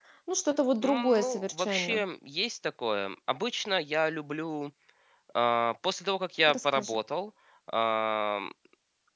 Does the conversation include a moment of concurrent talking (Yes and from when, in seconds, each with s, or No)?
Yes, from 0.8 s